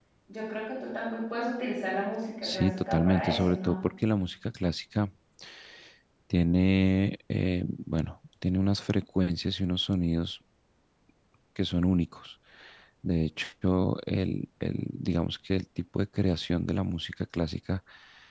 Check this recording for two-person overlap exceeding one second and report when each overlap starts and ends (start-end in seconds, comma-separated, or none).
2.4-3.7